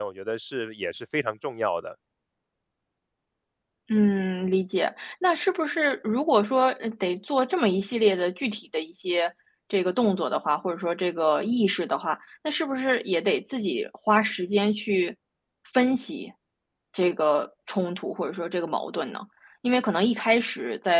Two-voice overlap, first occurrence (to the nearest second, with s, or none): none